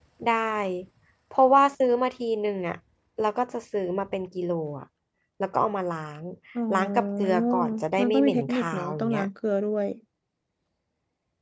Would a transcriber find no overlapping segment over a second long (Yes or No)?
No